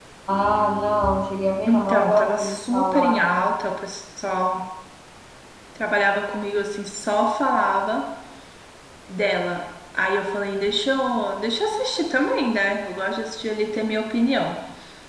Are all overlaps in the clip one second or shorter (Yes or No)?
No